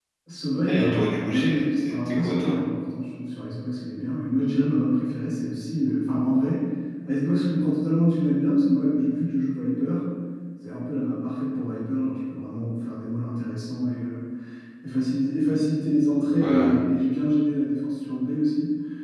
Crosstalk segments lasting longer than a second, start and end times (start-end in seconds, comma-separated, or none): 0.7-2.6